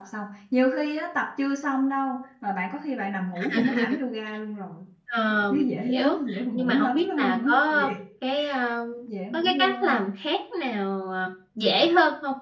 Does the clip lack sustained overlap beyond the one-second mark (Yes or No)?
No